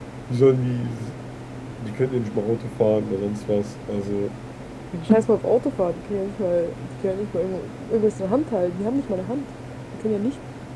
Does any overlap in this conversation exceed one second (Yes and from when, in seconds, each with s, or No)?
No